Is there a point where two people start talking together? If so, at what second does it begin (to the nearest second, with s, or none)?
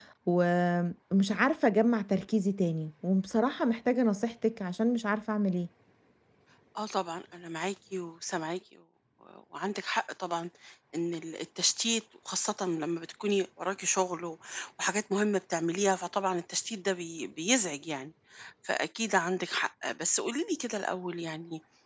none